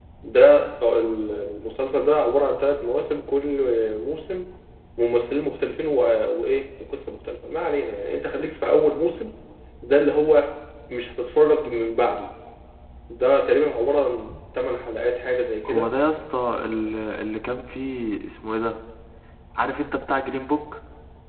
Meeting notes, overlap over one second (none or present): none